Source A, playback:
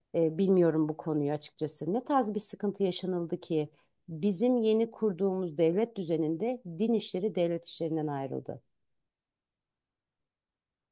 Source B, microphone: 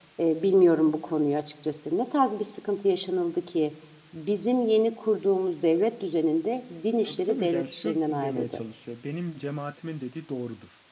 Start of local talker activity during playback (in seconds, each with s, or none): 7.0 s